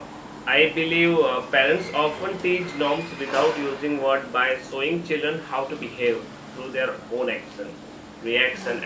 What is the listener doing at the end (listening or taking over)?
listening